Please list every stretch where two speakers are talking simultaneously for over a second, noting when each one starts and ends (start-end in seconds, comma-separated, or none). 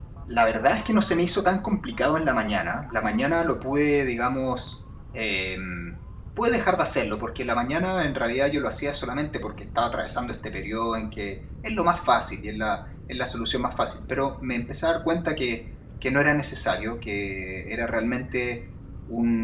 none